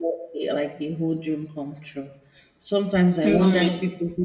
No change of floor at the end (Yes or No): Yes